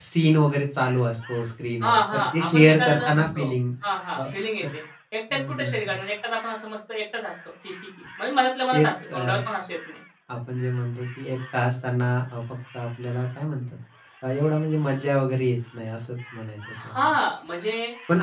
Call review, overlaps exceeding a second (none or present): present